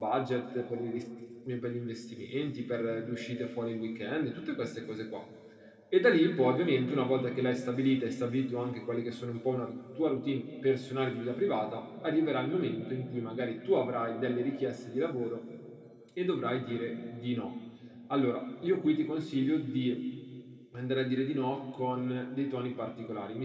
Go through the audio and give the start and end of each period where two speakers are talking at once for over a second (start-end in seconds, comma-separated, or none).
none